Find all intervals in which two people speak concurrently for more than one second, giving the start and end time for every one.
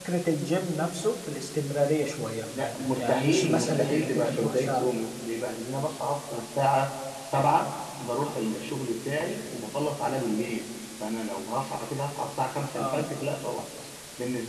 3.0-4.8

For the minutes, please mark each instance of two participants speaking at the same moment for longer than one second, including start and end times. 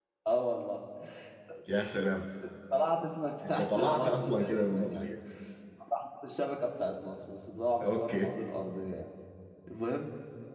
3.6-5.0

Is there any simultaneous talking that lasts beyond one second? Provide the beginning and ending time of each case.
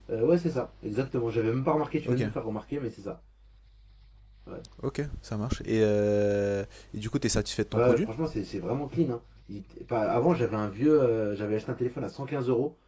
none

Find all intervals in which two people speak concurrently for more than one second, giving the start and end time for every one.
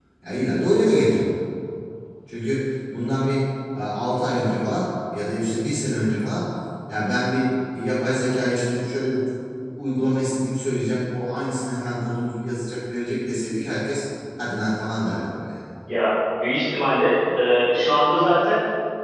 none

